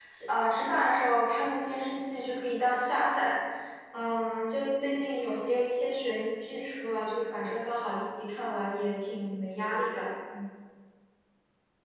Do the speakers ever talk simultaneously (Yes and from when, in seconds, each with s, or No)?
No